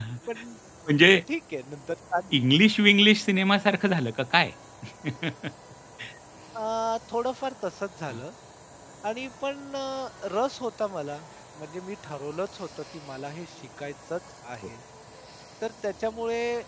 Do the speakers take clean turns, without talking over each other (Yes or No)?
Yes